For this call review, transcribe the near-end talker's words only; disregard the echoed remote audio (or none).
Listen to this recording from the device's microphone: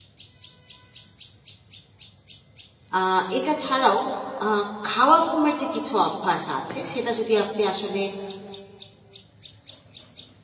আ এটা ছাড়াও আ খাওয়া ঘুমের যে কিছু অভ্যাস আছে সেটা যদি আপনি আসলে